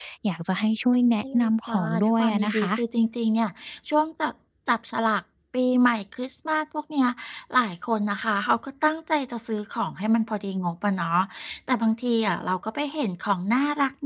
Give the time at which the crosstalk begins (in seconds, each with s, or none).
0.9 s